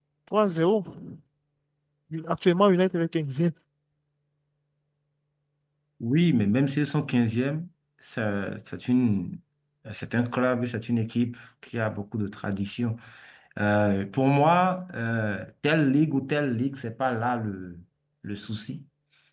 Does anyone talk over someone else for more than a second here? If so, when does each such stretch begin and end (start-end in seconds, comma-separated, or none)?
none